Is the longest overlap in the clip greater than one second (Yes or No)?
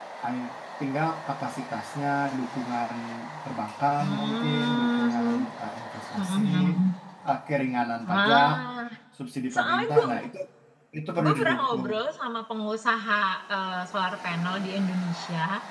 Yes